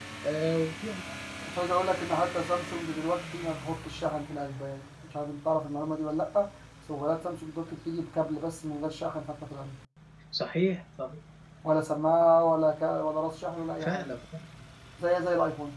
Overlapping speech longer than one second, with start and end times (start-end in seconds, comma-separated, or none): none